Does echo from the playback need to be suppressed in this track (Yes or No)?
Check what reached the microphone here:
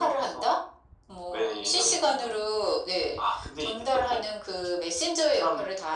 Yes